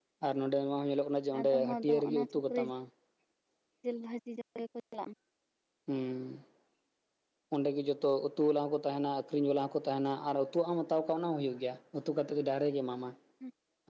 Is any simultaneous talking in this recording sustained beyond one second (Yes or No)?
Yes